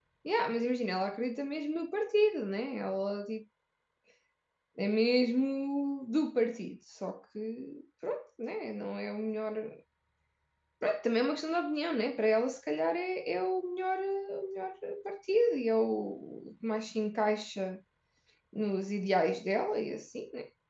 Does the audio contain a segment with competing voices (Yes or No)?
No